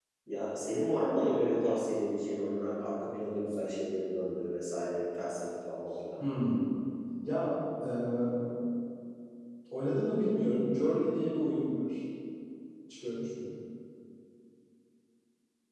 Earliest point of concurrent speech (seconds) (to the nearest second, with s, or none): none